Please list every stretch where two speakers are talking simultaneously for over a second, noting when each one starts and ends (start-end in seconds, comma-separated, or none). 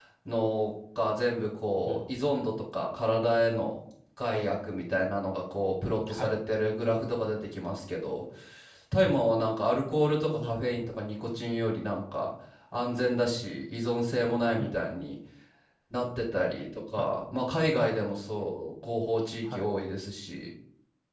none